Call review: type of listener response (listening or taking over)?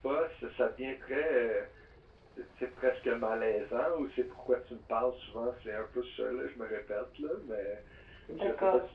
listening